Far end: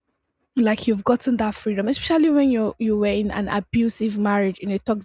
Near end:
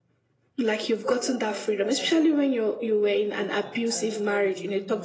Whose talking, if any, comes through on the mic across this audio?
both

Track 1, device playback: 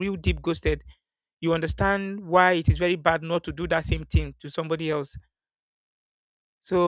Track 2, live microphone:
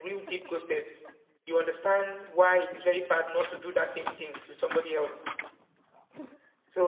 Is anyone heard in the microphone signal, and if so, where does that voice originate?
echo only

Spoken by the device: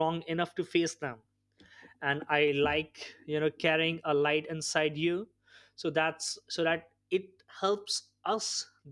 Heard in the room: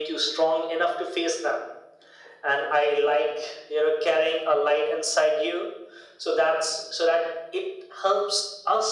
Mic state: echo only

